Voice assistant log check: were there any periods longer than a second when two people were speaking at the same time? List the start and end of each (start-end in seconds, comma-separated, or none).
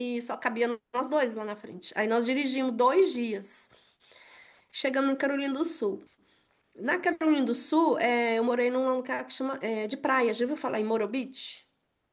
none